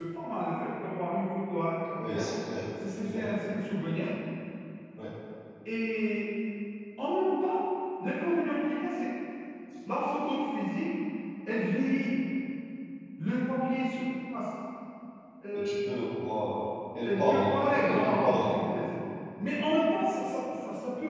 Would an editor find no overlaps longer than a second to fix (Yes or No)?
No